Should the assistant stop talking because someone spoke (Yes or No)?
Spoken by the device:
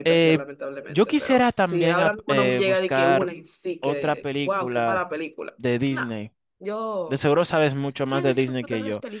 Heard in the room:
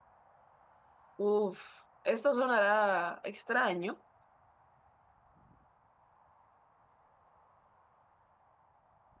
Yes